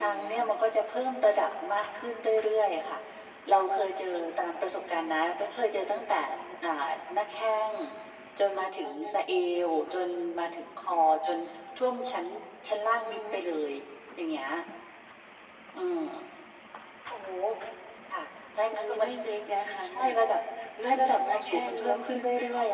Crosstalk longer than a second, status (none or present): present